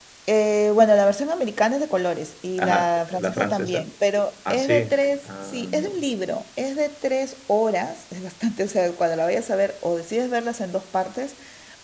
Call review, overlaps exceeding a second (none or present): present